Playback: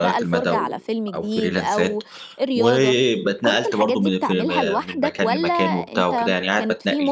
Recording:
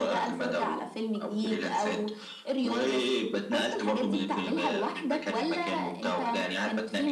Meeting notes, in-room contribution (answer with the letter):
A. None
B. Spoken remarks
A